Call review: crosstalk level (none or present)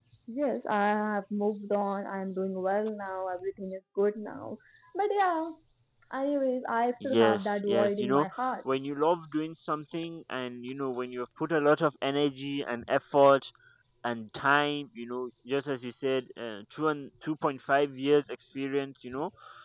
present